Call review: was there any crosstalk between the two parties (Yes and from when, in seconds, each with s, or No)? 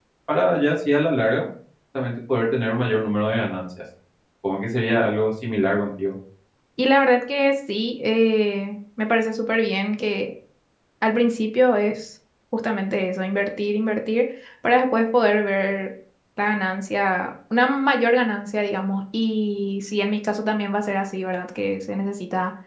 No